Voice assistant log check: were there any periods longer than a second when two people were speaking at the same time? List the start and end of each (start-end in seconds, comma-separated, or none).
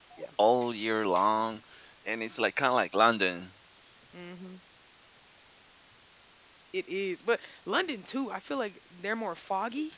none